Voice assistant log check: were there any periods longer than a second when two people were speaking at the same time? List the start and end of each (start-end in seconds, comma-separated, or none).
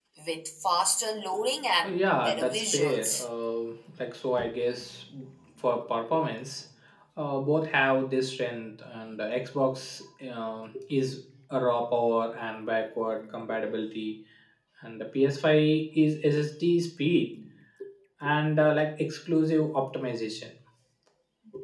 1.8-3.2